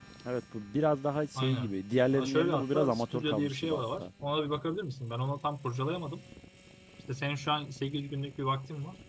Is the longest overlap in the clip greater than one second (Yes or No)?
Yes